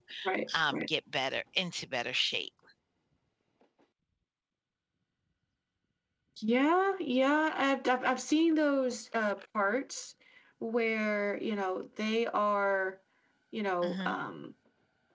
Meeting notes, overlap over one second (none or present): none